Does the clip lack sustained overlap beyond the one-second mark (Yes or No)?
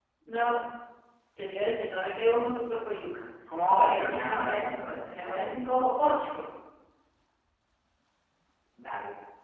No